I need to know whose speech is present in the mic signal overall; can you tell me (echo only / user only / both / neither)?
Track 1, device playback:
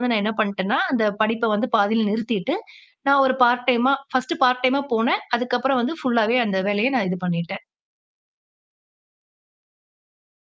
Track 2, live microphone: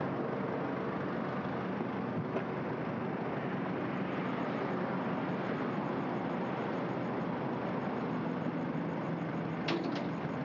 neither